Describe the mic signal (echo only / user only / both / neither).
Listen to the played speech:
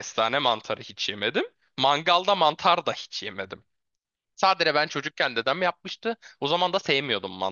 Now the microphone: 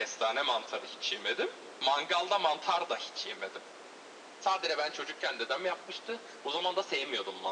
echo only